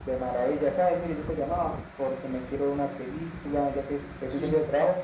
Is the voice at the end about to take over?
No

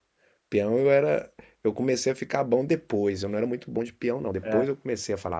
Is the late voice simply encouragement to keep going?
Yes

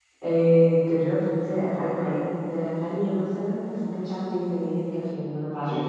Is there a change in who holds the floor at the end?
Yes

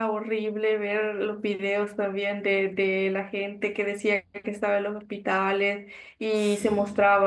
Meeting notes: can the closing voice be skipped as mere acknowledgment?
Yes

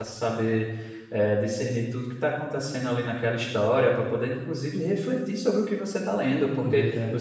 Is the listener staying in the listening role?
Yes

